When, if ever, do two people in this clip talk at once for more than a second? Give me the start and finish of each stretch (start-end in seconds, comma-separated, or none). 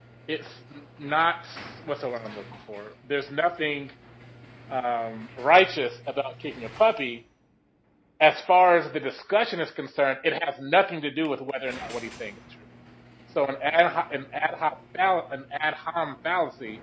none